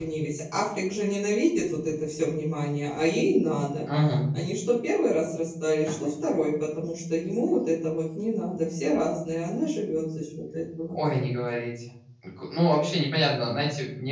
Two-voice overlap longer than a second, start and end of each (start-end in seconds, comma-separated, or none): none